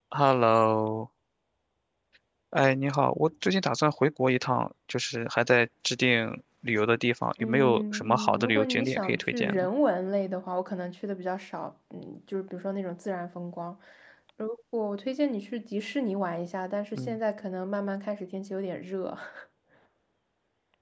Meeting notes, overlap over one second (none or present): present